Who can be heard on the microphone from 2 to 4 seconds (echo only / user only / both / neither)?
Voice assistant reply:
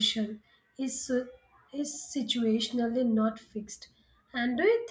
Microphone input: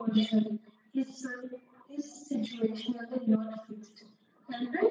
echo only